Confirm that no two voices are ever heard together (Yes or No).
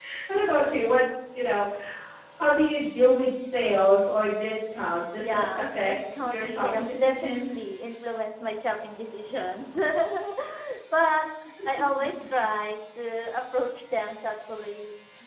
No